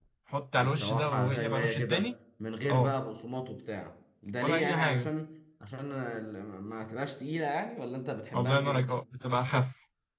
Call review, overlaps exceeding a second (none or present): present